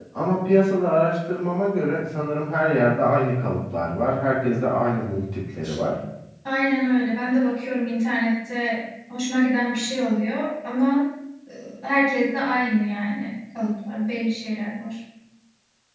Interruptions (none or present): none